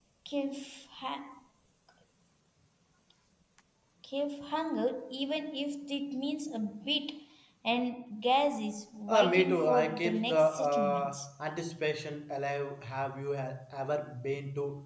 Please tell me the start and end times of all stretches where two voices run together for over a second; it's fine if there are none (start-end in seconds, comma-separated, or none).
9.1-11.3